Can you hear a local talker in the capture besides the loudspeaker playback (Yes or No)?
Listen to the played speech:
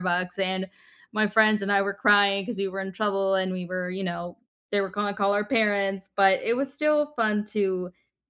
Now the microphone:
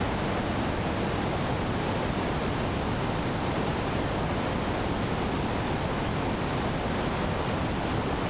No